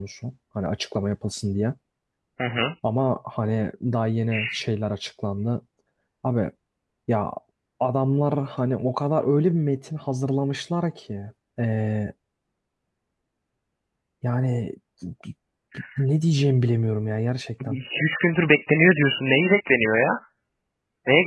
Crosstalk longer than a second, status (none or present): none